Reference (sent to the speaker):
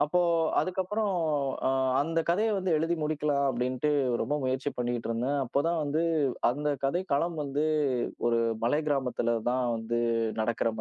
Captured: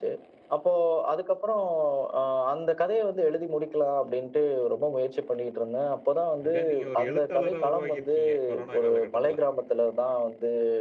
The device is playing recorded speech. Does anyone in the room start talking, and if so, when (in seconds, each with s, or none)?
6.5 s